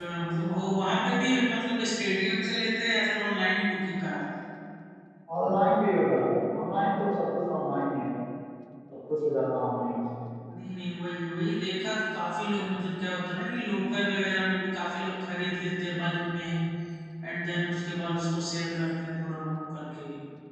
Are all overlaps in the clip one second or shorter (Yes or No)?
Yes